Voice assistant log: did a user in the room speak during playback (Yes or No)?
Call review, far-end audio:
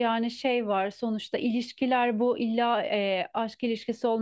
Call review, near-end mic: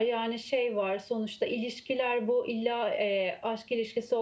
No